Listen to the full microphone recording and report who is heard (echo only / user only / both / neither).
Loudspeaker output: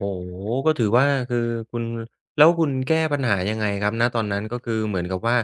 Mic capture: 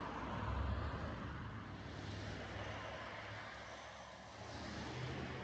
neither